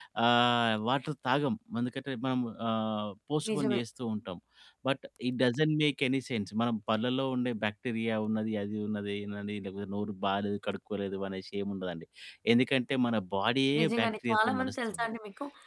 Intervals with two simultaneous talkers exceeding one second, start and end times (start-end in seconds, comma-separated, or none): 13.8-15.1